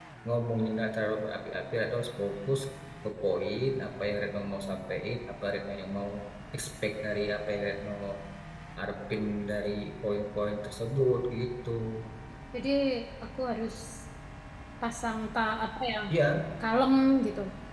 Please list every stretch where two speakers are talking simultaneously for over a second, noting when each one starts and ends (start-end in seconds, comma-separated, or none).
none